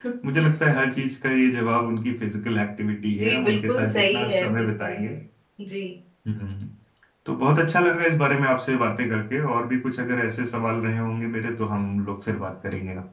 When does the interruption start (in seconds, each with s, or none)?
3.1 s